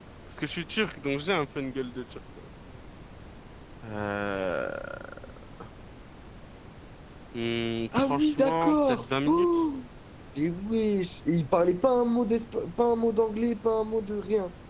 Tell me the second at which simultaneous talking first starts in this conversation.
8.0 s

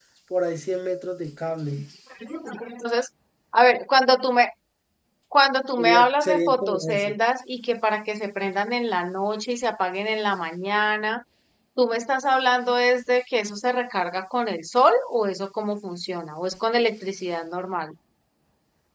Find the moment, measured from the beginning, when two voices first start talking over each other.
5.8 s

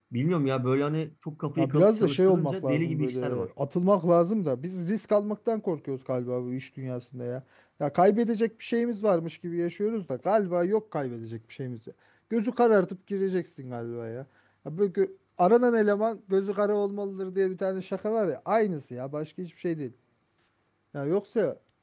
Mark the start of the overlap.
1.6 s

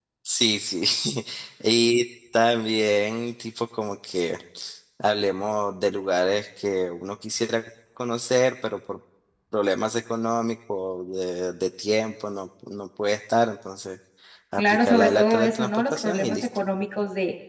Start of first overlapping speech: 14.6 s

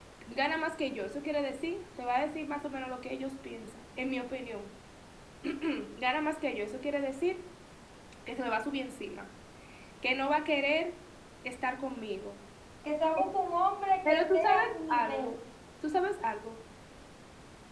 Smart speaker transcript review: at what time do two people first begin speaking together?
14.1 s

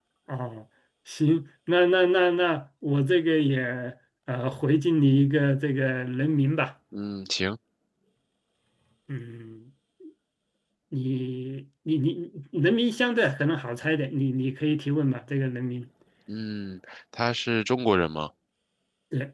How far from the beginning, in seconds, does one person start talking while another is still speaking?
none

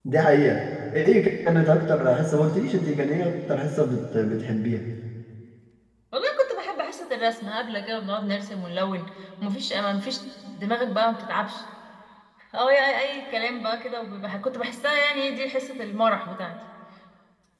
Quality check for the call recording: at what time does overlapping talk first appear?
none

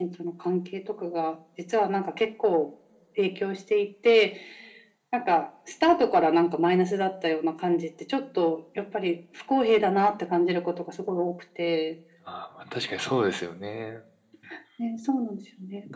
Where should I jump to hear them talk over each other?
none

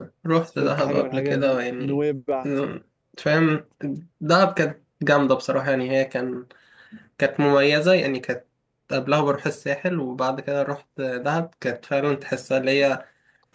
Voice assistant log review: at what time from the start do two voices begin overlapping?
0.6 s

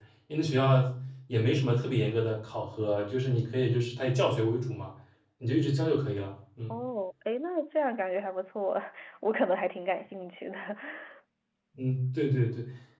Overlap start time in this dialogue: none

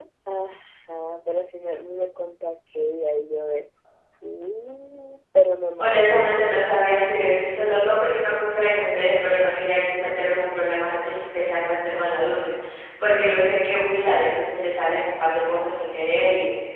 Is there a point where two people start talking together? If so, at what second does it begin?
5.8 s

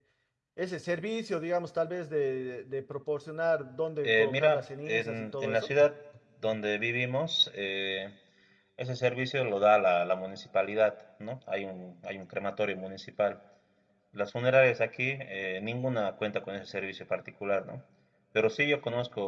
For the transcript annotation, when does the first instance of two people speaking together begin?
4.0 s

